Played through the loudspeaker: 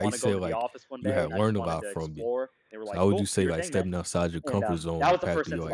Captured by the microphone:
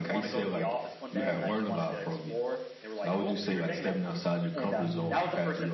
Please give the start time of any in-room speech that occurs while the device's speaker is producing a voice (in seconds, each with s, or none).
4.8 s